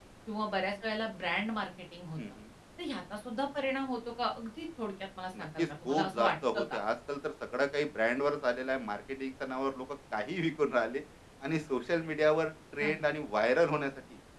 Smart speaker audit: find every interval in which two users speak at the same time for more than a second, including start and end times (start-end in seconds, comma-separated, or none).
5.4-6.8